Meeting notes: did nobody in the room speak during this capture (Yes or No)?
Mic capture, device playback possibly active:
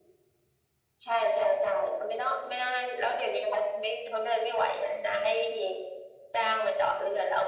Yes